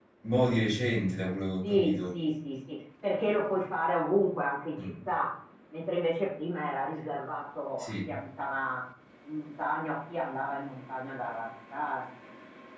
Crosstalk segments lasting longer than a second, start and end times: none

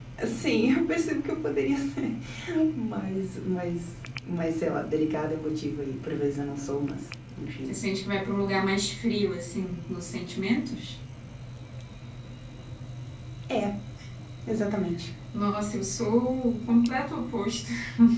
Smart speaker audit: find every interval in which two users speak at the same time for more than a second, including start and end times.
none

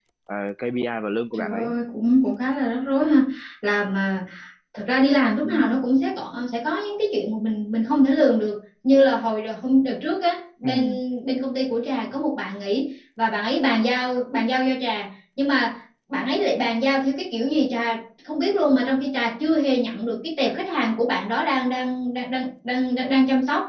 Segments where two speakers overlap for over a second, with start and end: none

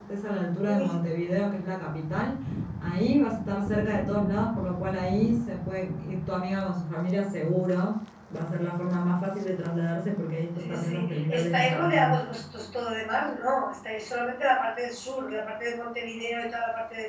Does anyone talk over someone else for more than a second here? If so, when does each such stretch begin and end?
10.6-12.2

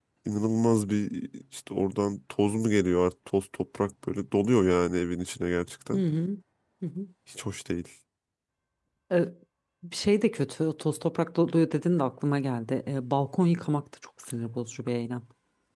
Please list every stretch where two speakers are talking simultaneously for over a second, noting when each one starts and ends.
none

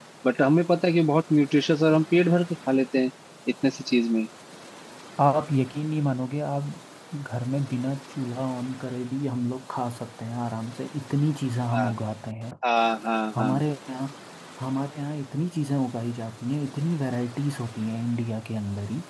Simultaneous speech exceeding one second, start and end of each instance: none

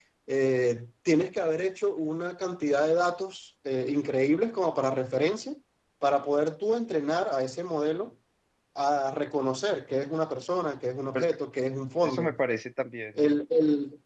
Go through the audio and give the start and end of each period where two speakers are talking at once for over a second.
none

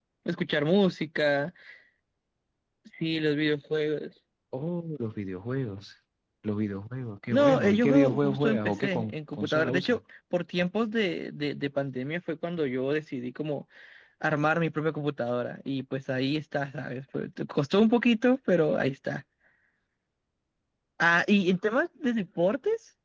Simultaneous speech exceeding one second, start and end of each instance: 7.3-10.0

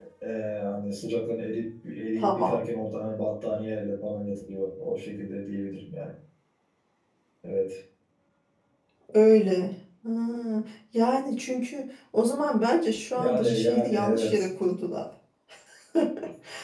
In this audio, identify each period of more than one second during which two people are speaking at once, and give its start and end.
13.2-14.5

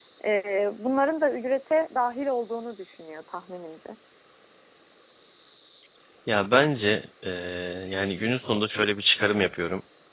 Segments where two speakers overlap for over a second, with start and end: none

